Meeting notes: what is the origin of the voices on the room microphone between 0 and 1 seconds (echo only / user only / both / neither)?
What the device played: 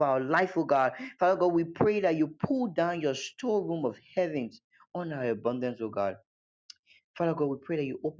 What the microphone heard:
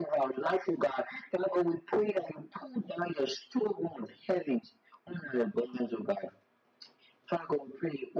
echo only